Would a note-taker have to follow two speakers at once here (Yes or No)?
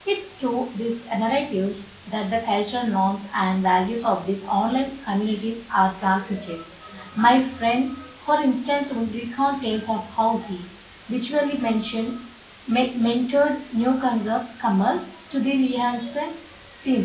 No